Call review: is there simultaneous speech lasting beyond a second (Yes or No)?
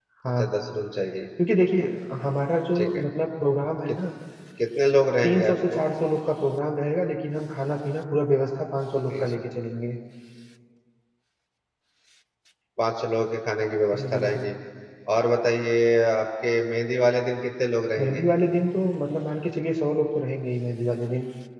No